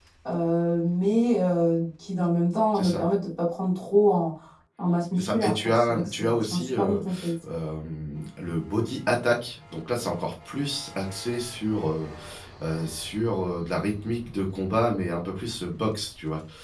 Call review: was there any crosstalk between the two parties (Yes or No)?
Yes